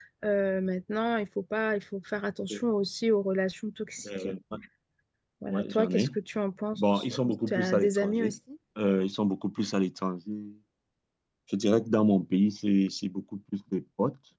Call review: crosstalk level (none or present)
present